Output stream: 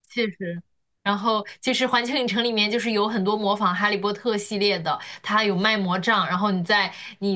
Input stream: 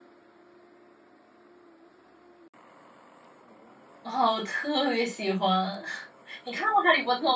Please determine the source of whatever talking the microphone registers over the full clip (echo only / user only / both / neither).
user only